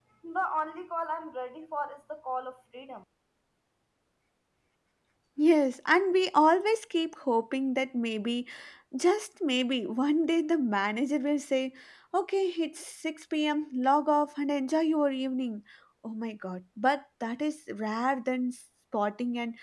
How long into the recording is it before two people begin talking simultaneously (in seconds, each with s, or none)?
none